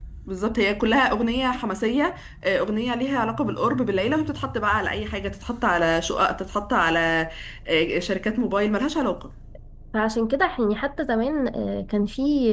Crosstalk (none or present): none